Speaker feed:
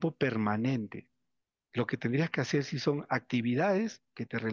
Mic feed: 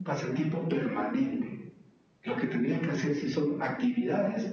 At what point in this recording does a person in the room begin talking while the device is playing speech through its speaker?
none

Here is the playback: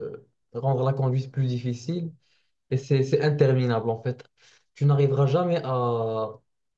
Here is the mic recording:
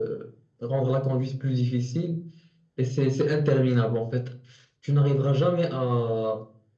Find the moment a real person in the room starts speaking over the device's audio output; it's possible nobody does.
none

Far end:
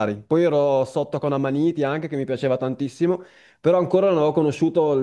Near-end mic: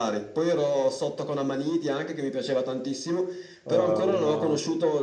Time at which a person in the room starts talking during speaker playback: 4 s

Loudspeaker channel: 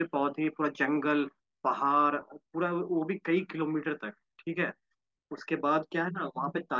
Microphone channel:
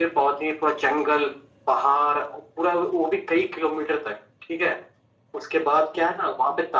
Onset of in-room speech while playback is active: none

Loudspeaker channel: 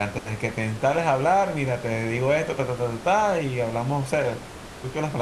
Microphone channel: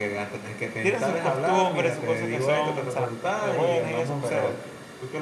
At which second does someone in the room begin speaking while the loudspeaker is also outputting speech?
1 s

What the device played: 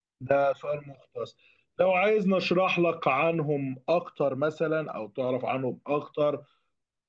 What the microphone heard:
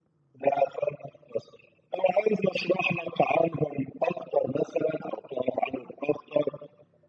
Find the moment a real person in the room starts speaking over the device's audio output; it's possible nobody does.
none

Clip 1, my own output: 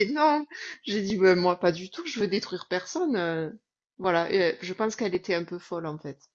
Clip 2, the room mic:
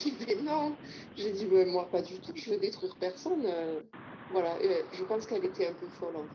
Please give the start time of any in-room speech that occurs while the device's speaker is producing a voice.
none

